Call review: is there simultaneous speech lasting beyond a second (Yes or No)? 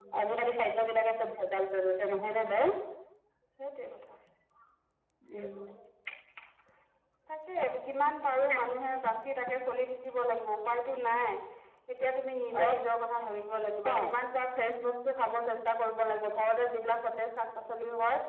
No